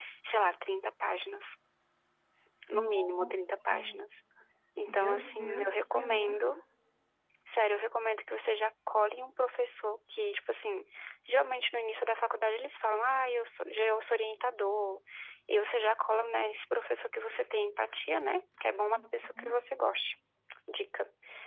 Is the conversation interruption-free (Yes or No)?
No